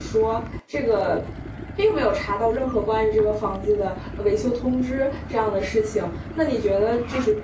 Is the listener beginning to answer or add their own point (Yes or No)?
No